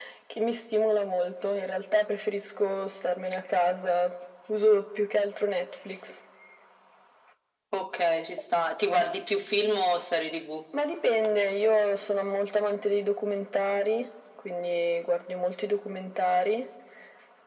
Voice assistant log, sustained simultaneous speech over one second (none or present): none